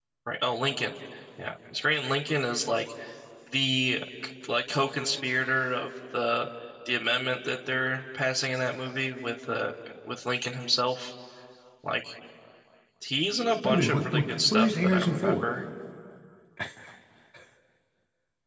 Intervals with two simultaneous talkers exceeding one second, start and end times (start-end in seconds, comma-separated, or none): 13.6-15.4